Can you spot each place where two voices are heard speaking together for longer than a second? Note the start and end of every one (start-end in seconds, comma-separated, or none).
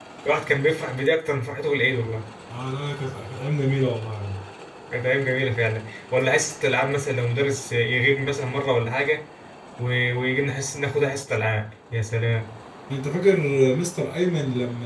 none